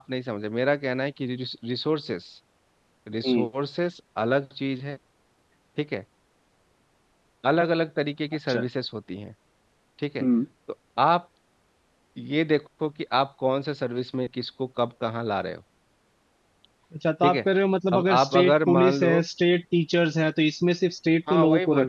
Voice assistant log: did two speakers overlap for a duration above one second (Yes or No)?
Yes